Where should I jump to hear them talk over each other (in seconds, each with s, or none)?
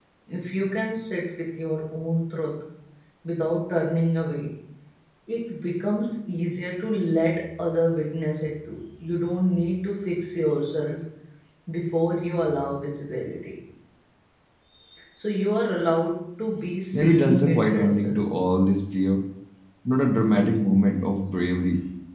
16.9 s